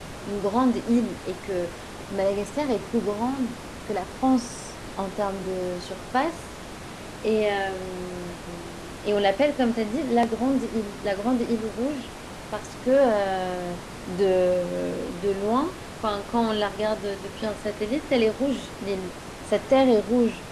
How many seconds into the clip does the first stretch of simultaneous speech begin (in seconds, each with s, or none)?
none